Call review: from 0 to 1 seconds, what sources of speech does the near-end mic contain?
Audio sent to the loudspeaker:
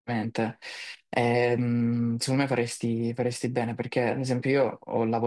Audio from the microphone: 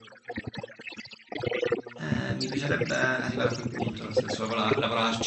echo only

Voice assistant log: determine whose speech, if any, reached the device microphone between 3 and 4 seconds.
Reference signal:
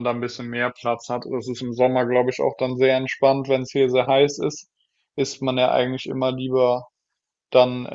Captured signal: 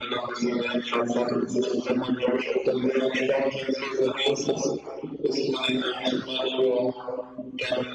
echo only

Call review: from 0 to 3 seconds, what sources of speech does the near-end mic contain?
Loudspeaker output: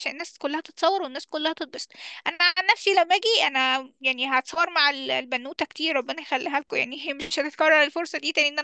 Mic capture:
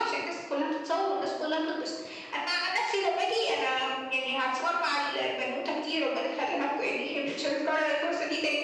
echo only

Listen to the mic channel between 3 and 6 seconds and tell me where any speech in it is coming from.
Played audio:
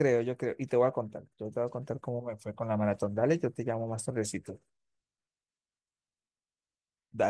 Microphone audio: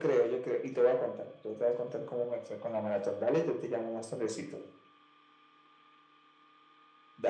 echo only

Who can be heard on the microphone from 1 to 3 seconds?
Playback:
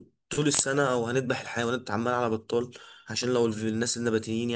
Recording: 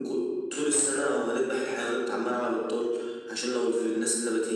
echo only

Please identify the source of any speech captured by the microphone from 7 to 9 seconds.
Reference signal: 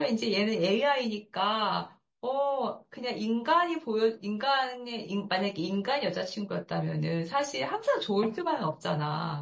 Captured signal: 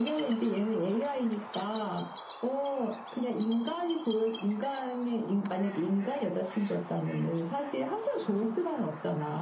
echo only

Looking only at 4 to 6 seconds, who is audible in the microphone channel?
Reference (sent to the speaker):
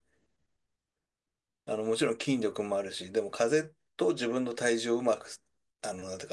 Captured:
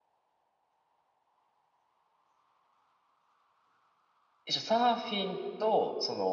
user only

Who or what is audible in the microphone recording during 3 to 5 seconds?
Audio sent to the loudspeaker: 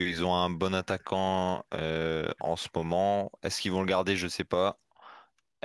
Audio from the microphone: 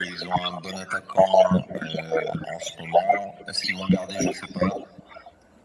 echo only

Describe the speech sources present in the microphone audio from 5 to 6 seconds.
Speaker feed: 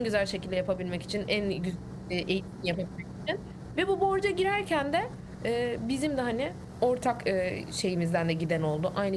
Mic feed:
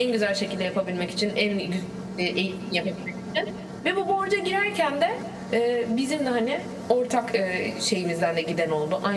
echo only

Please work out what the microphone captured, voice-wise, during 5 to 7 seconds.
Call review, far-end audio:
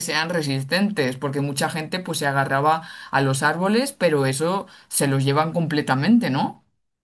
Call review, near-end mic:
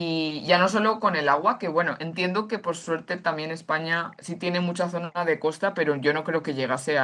user only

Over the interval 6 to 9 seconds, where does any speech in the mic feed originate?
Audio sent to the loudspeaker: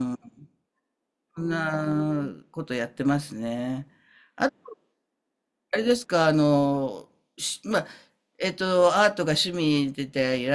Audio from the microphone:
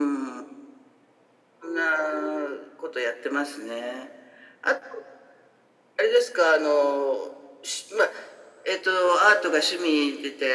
echo only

